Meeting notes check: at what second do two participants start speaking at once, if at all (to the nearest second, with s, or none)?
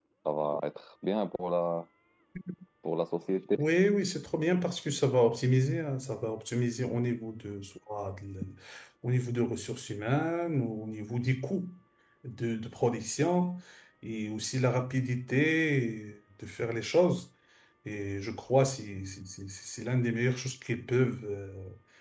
none